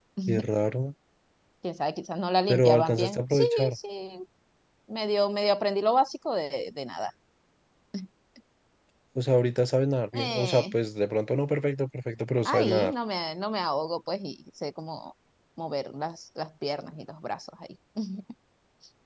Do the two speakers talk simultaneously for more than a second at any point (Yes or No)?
Yes